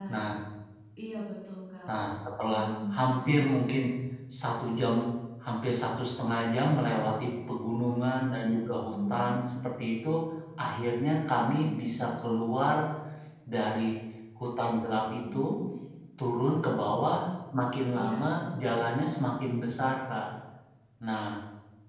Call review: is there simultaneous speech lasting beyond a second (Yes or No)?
No